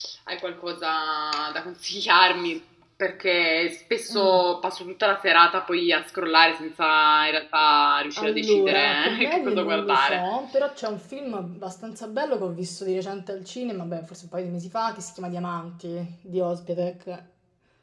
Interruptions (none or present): present